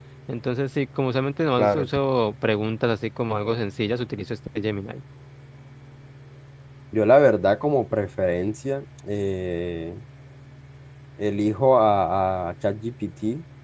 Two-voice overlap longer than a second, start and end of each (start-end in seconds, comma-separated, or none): none